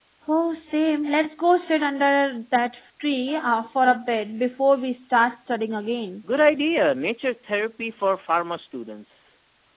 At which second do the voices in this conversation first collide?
none

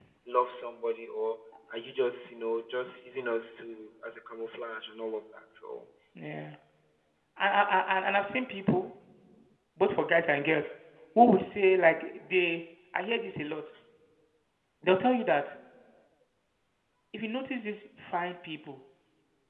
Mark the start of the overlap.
none

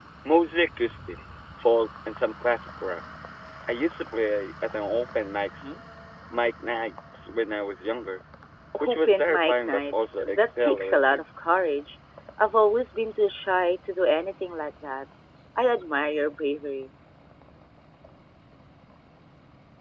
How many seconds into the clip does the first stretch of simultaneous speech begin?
8.9 s

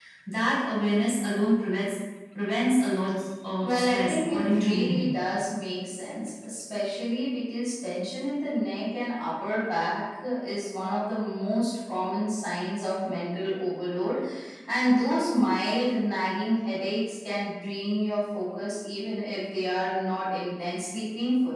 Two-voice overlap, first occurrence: 3.6 s

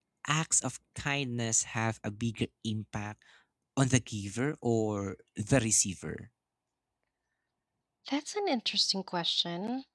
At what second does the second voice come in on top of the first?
none

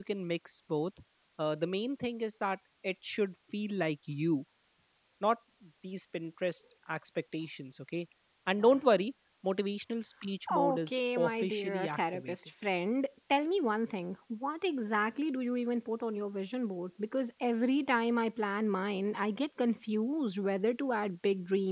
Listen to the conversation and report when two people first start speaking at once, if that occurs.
10.5 s

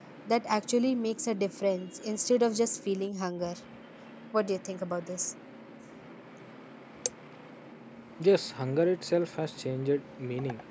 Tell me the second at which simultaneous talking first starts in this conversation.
none

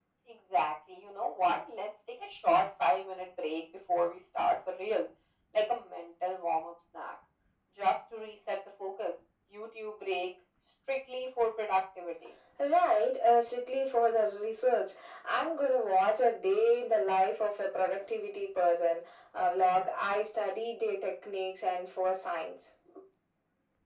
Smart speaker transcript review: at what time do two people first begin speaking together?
none

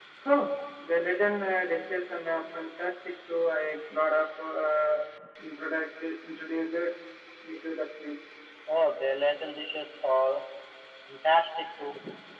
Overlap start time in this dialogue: none

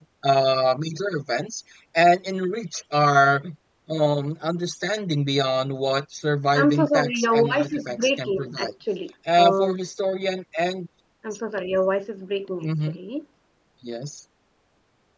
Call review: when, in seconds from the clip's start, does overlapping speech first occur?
6.5 s

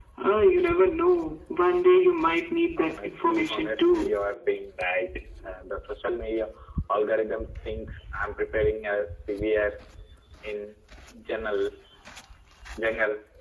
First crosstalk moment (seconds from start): 2.8 s

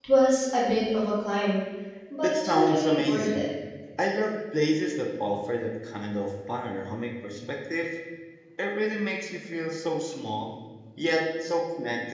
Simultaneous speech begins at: 2.2 s

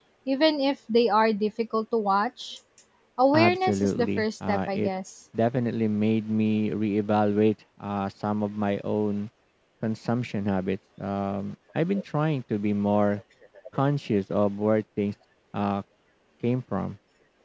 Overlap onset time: 3.3 s

